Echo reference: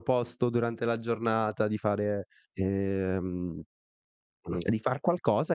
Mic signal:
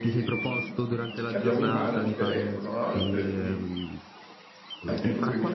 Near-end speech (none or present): present